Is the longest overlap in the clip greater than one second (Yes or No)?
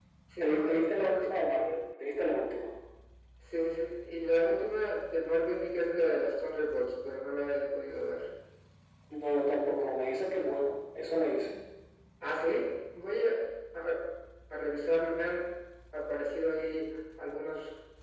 Yes